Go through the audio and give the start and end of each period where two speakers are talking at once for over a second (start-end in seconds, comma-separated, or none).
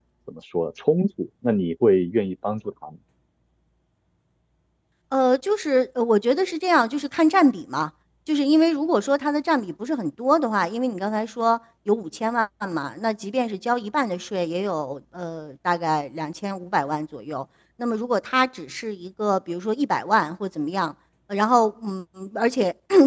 none